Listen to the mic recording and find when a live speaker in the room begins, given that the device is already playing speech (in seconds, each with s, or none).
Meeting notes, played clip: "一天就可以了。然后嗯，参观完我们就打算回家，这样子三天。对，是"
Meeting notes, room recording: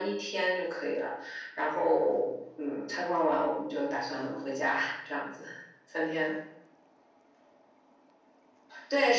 none